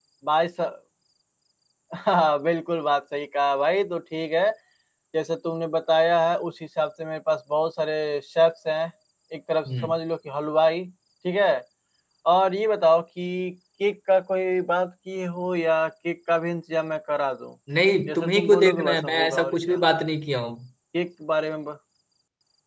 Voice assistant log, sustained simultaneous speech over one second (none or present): present